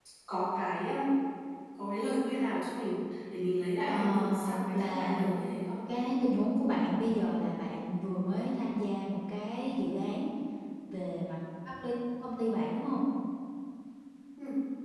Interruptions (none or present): present